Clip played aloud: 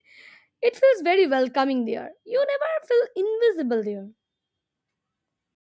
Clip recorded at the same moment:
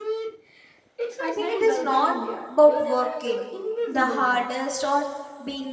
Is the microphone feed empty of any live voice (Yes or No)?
No